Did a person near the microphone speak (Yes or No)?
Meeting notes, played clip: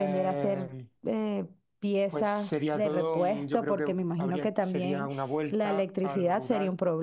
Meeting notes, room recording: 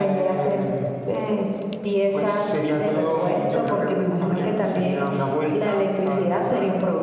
No